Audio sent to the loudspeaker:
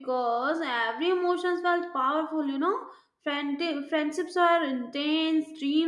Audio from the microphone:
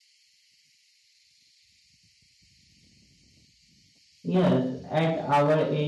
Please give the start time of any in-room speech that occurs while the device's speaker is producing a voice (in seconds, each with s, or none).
4.3 s